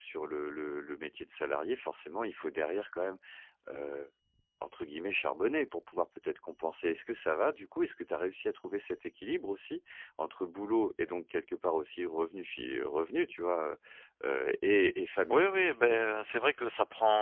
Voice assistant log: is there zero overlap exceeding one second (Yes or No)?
Yes